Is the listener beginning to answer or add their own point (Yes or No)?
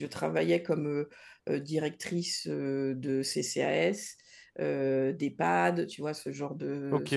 No